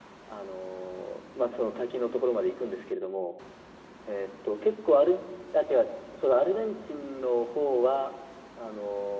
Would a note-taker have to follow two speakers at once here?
No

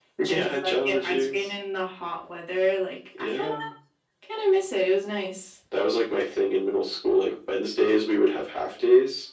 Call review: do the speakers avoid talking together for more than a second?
No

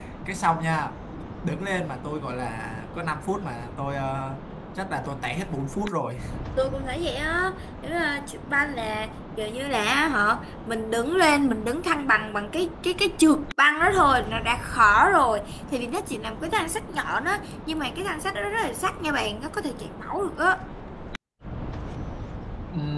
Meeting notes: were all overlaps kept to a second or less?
Yes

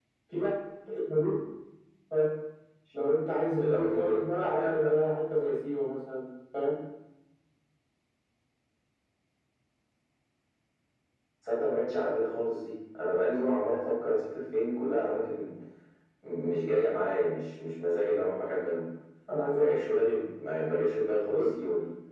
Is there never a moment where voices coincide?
No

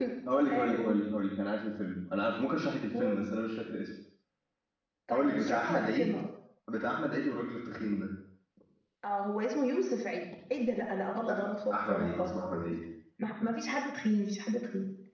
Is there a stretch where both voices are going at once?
Yes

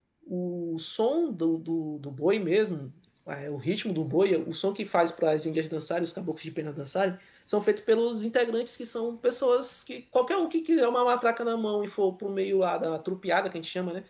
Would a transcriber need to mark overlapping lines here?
No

